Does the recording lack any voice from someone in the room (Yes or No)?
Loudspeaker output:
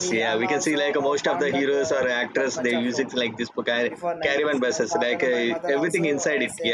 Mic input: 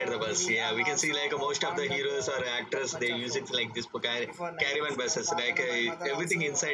Yes